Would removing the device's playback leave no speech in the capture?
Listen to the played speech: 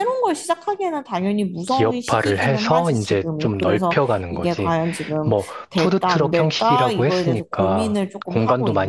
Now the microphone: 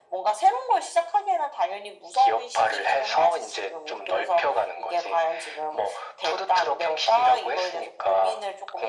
Yes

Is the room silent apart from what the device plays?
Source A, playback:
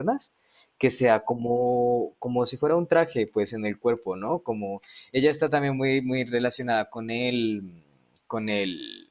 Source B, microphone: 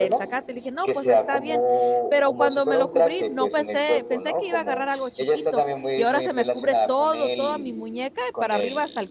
No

